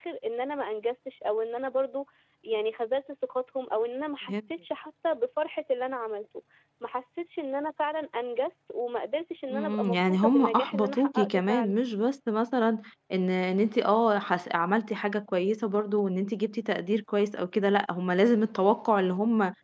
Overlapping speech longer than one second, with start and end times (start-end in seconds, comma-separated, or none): 9.5-11.8